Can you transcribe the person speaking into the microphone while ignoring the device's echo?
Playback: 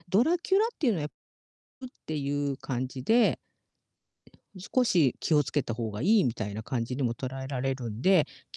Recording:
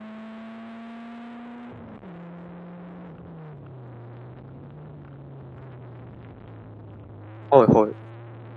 はいはい。

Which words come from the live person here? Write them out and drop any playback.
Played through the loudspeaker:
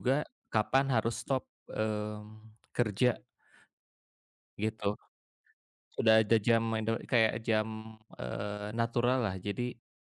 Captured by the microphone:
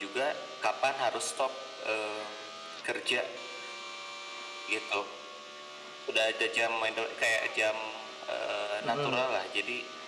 Mhm.

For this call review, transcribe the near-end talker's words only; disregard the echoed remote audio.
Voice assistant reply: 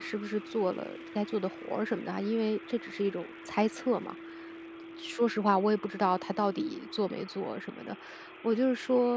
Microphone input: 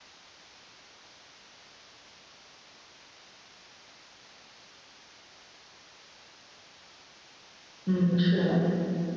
嗯，是。

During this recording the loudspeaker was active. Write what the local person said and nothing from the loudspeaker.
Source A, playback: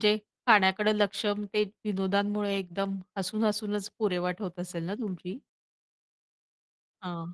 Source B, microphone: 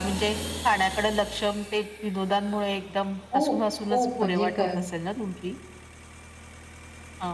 खूप, खूप म्हणजे ग

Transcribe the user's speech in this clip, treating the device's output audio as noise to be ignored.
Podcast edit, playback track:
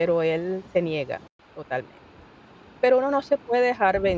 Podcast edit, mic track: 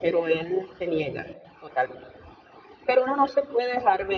none

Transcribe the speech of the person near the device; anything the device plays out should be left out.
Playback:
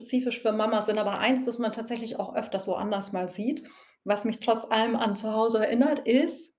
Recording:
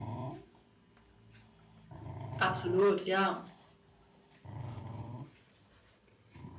Absolut, ja.

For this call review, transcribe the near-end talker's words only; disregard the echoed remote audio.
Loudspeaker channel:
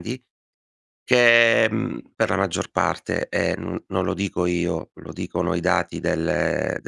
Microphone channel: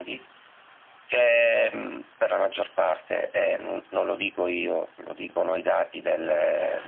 none

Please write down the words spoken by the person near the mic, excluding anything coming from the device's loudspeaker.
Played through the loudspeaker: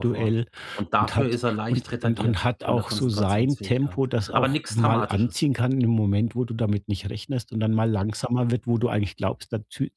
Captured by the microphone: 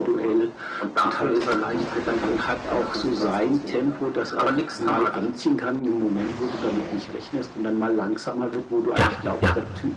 Ja, ja.

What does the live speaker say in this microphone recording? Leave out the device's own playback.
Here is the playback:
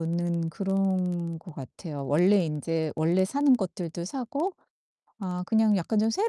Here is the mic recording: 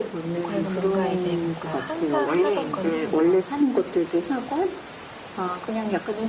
그리고 뭔가 이제 뭔가 항상 사던 거는 그러니까

